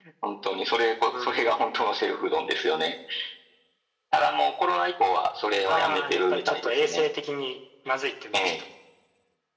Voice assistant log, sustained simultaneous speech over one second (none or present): present